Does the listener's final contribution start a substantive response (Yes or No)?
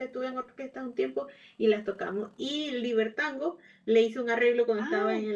No